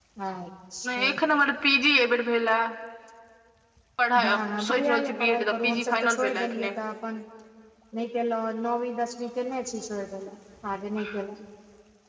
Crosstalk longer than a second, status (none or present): present